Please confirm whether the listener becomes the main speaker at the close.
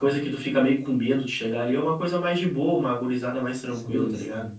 Yes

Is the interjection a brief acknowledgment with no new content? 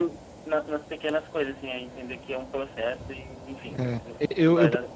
No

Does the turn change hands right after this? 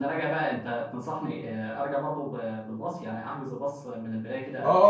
Yes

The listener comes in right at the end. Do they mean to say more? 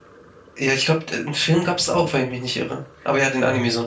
Yes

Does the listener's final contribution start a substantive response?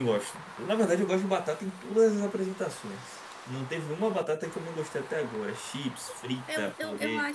Yes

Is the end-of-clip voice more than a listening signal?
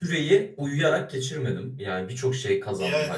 No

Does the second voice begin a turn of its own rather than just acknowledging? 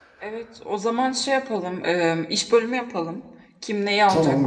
No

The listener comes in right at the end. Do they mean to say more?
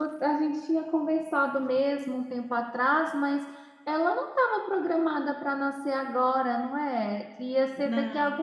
No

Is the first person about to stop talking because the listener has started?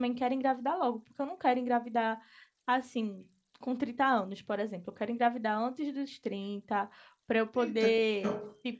No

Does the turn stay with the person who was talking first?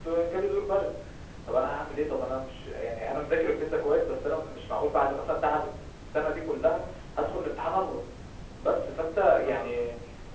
Yes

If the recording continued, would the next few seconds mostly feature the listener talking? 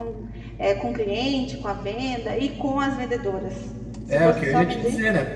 Yes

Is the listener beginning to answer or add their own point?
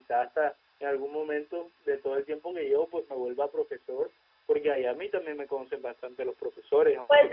Yes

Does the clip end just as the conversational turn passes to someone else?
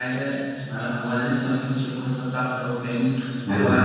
No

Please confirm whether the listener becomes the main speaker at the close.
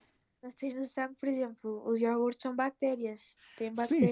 Yes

